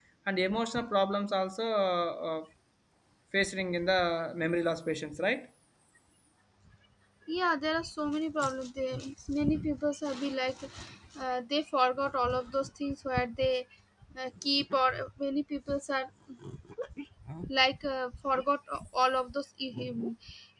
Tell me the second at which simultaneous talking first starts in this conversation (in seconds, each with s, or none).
none